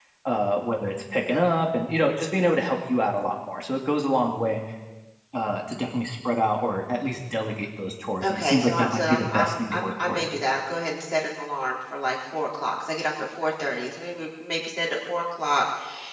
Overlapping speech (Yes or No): Yes